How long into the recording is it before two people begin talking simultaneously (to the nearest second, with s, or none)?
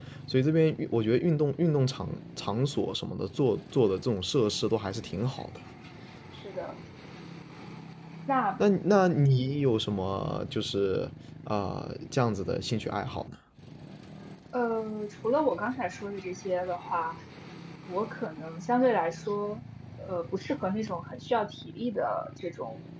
none